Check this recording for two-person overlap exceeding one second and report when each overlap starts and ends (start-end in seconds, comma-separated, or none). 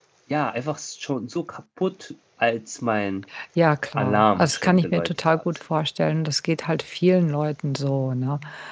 4.0-5.4